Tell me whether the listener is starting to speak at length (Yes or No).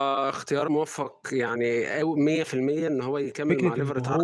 Yes